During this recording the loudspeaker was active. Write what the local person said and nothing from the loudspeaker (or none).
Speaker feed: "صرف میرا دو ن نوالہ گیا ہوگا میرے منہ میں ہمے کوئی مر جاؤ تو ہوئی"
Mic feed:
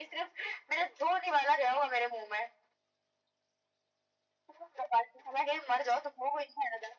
none